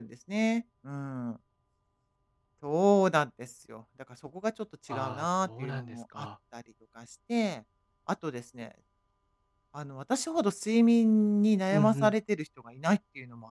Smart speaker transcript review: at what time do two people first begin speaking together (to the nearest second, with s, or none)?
5 s